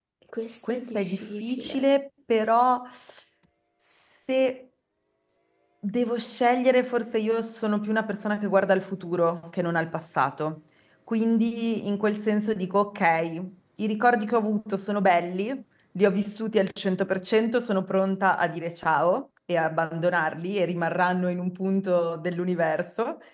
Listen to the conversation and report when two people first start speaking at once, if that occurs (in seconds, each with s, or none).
0.6 s